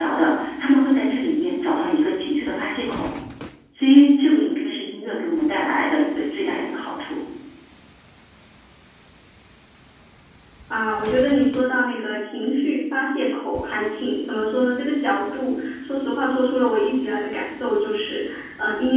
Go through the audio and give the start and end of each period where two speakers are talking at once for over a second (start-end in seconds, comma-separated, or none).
none